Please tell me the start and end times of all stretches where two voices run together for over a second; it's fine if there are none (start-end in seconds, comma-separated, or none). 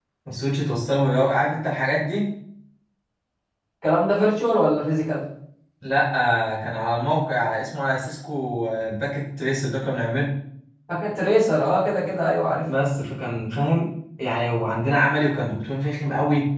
none